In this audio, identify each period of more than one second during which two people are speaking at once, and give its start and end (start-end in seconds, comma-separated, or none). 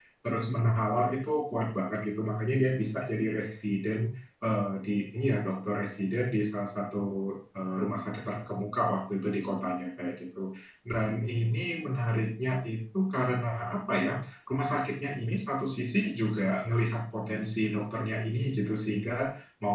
none